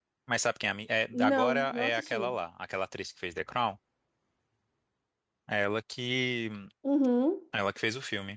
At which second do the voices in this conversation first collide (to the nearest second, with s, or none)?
1 s